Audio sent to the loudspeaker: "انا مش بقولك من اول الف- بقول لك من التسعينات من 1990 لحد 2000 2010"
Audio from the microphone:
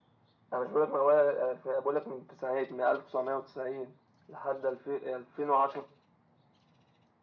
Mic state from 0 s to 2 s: echo only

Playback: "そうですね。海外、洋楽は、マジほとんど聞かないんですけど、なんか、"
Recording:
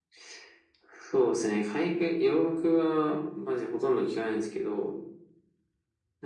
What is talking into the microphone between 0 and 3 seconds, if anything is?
echo only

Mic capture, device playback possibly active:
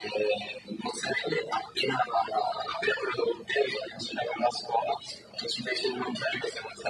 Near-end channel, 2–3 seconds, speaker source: echo only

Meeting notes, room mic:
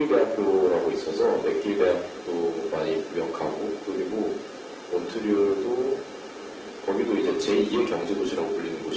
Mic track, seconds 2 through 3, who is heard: echo only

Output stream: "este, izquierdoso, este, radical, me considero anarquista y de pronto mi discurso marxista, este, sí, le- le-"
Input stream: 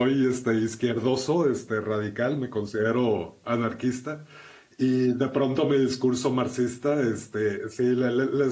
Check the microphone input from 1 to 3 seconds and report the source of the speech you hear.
echo only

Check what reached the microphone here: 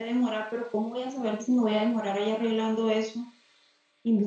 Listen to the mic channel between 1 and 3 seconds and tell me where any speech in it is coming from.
user only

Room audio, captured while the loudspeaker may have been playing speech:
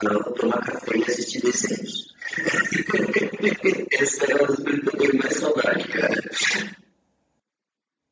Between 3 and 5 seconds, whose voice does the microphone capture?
echo only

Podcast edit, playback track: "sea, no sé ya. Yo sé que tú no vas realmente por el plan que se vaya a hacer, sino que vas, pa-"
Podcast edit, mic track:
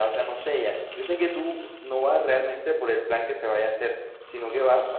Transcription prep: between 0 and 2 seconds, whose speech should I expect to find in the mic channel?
echo only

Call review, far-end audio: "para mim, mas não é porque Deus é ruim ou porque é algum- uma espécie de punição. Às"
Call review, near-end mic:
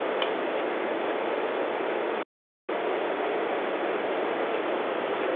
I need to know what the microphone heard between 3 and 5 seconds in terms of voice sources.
neither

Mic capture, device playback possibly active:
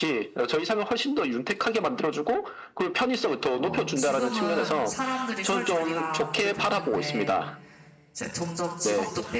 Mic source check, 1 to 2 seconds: echo only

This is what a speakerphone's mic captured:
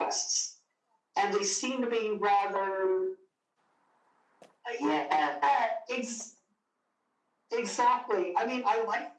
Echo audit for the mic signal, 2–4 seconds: echo only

